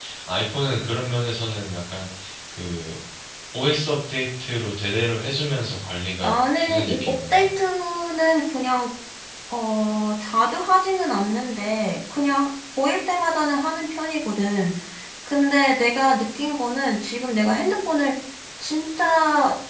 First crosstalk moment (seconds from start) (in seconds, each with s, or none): 6.2 s